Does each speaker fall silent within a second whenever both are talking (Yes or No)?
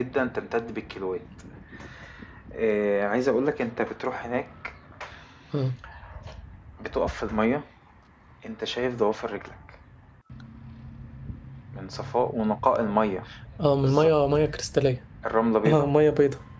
Yes